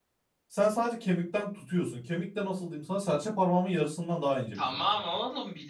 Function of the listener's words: taking over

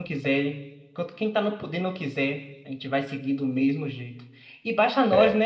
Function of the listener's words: listening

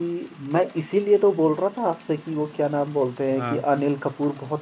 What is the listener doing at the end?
listening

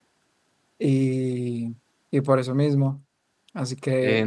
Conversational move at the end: taking over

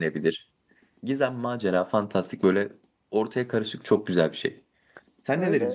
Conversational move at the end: taking over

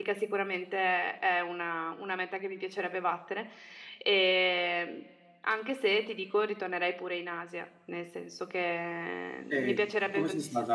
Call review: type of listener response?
taking over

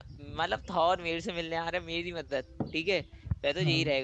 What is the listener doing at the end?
listening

